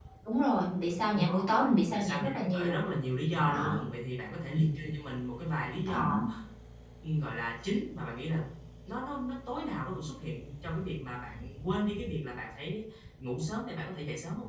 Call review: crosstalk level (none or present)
present